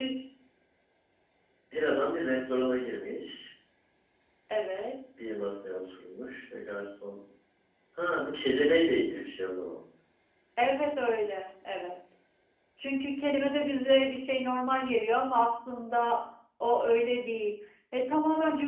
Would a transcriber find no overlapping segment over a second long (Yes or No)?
Yes